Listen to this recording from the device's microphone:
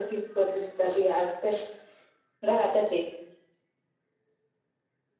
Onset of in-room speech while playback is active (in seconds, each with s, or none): none